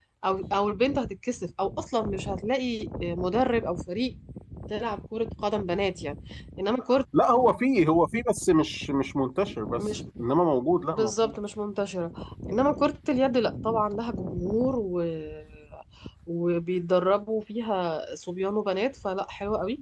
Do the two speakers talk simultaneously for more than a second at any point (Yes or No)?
No